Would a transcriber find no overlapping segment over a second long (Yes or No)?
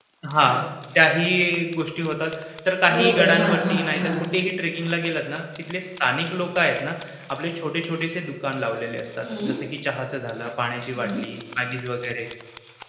No